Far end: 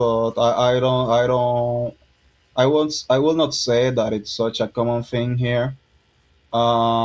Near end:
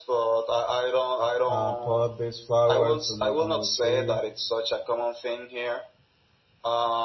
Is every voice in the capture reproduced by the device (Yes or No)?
No